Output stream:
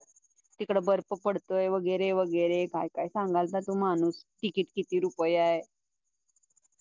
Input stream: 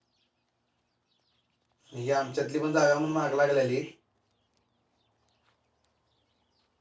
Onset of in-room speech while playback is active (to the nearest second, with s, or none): 2 s